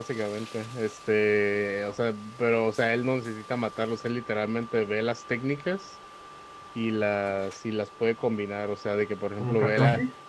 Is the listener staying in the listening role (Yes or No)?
Yes